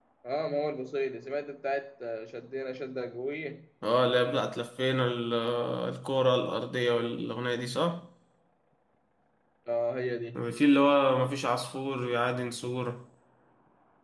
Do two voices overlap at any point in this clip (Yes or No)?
No